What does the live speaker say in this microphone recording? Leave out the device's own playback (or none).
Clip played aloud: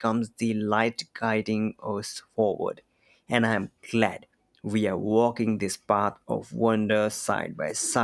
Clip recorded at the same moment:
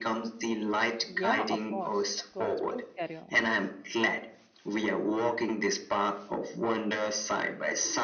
Yeah, of course. Of course. Please carry on.